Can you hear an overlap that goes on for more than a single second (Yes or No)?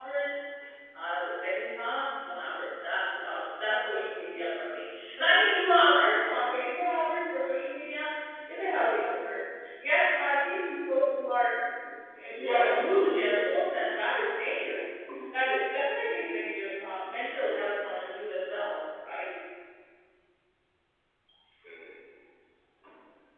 Yes